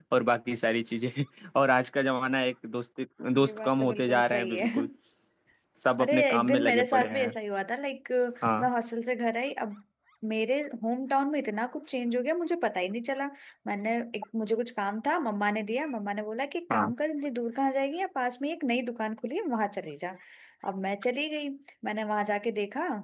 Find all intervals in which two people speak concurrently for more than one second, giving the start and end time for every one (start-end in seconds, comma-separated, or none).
3.4-4.9, 6.0-7.3